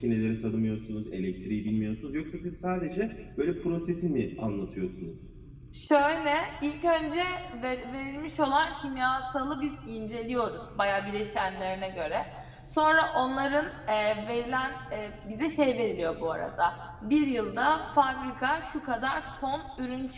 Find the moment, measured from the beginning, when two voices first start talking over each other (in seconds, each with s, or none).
none